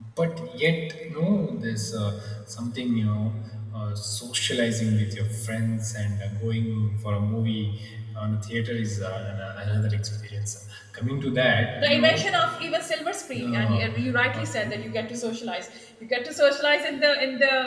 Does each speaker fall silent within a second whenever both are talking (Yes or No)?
Yes